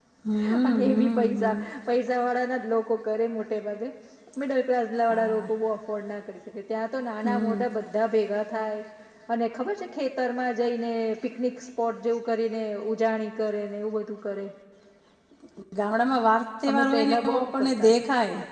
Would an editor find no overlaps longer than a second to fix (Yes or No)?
No